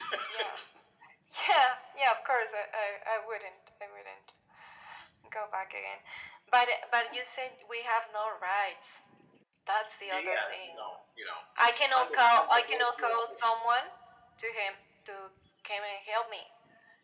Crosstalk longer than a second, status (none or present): present